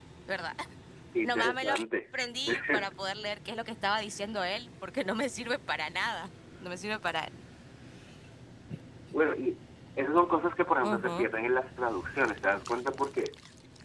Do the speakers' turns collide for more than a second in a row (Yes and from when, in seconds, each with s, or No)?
No